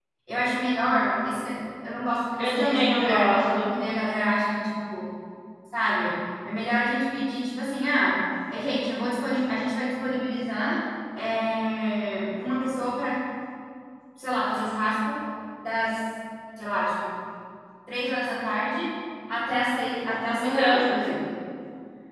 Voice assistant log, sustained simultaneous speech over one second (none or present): present